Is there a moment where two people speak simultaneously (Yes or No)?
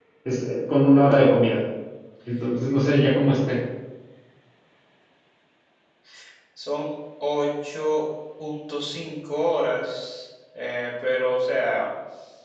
No